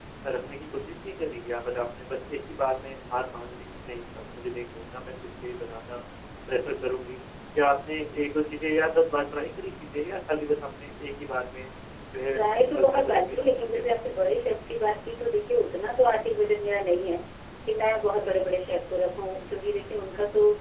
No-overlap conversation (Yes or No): No